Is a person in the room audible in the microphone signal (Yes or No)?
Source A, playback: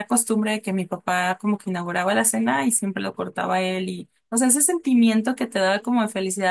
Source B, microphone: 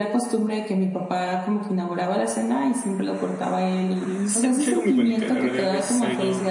Yes